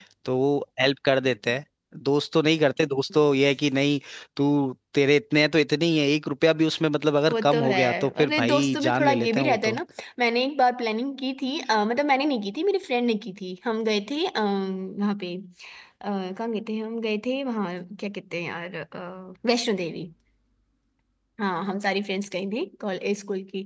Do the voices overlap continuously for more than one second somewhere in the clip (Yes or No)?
Yes